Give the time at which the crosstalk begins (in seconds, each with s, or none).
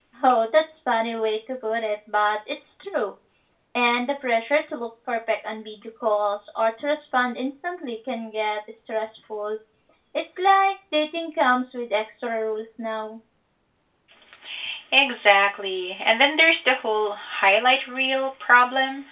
none